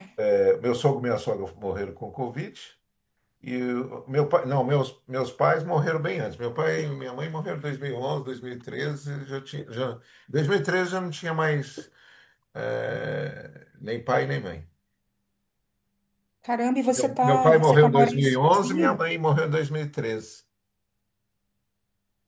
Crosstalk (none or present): present